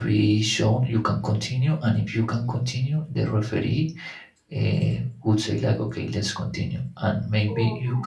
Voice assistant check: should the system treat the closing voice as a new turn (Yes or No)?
No